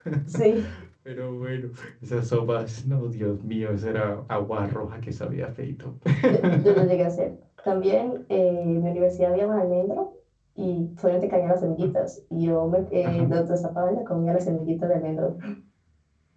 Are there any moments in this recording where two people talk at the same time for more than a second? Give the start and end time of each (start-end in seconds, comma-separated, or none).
none